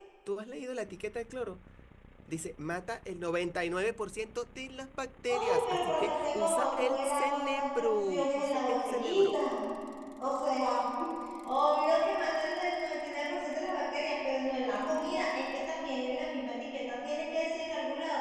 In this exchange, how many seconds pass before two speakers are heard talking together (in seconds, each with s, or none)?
5.3 s